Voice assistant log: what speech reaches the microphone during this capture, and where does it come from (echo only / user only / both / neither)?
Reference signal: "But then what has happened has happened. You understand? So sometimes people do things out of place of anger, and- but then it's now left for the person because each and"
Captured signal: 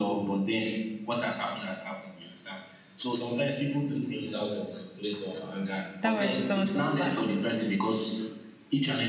both